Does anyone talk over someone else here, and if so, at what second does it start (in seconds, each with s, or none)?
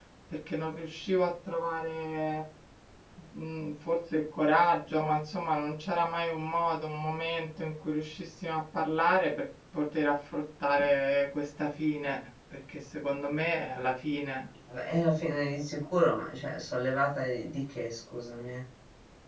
none